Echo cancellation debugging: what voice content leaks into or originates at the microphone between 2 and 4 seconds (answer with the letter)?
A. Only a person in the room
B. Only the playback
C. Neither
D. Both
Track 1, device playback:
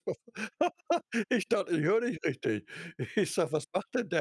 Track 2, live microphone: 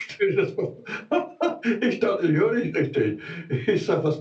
B